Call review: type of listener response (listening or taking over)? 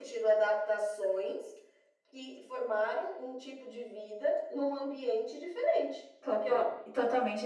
taking over